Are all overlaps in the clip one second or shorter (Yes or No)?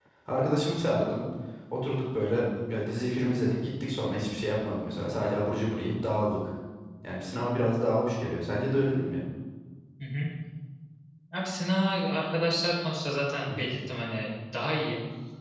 Yes